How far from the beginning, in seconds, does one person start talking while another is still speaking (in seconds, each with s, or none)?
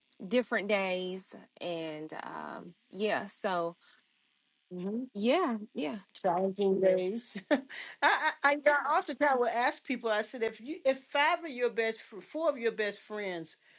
none